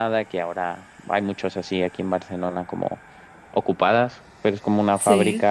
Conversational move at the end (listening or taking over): listening